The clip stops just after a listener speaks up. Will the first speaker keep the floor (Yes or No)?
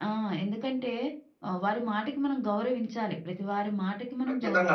No